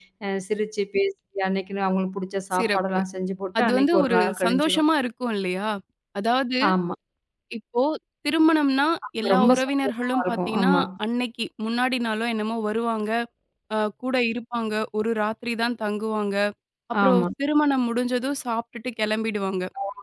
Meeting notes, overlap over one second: present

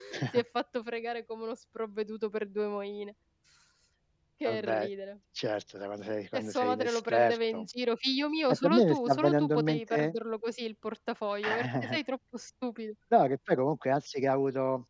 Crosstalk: present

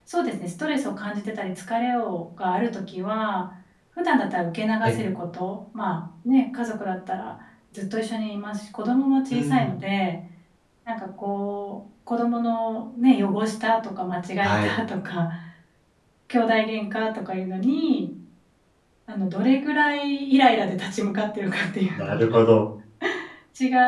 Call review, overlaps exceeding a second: none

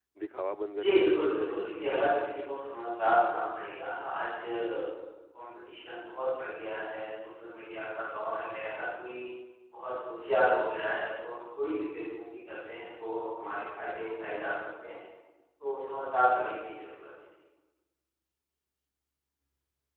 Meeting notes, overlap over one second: present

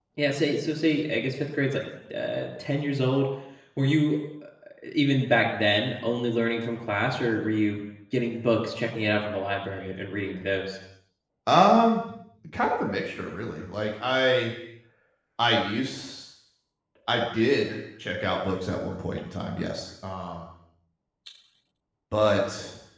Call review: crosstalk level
none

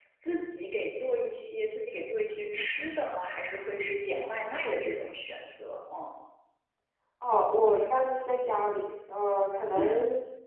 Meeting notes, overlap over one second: none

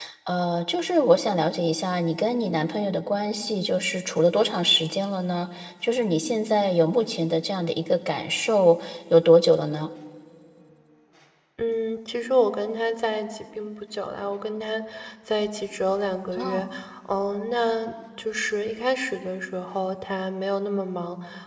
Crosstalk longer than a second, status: none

